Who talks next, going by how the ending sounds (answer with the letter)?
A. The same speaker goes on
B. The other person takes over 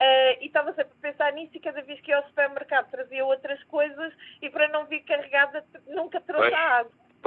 B